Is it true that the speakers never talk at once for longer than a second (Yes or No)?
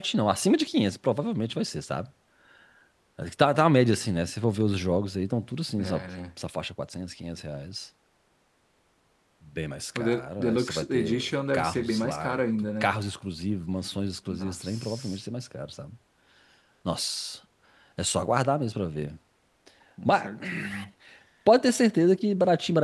No